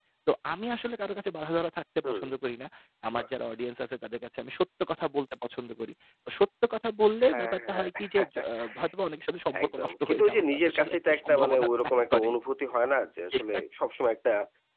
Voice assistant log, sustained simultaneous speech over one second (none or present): present